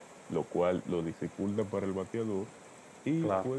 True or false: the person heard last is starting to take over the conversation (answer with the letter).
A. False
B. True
A